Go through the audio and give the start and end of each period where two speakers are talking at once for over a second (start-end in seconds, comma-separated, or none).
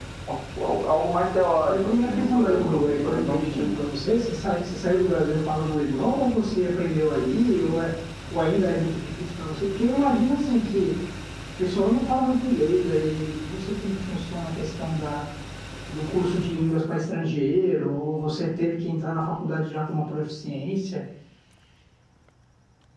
1.7-3.8